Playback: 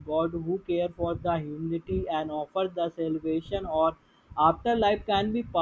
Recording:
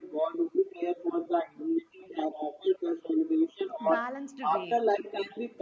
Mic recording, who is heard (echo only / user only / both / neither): both